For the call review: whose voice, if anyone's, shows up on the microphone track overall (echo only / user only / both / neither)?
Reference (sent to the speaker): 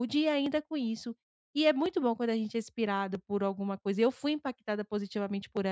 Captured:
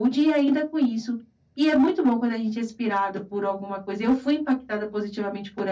echo only